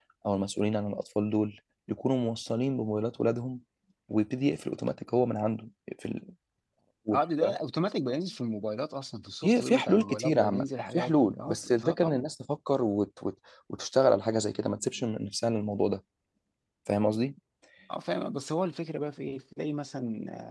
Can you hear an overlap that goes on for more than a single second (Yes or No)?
Yes